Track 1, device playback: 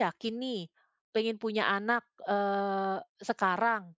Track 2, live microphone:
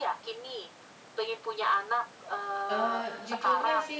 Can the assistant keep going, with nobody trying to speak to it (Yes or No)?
No